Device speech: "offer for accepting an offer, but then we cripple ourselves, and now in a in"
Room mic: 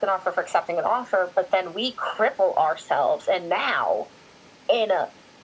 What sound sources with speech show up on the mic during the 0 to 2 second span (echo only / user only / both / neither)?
echo only